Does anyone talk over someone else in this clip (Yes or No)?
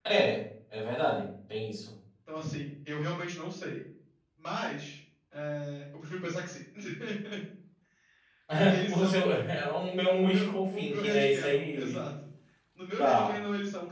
Yes